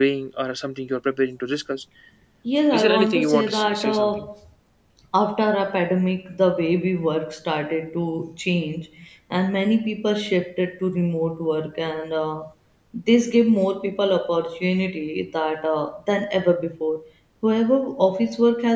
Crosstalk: present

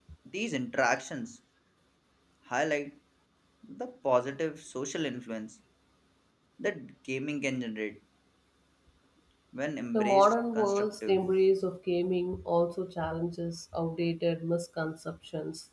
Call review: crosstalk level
present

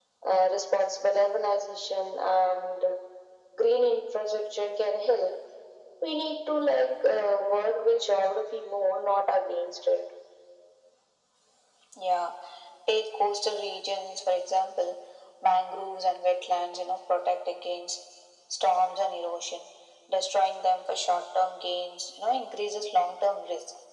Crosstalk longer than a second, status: none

